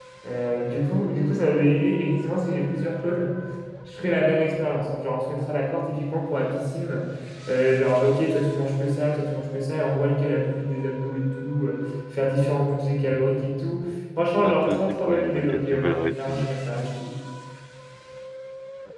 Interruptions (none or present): present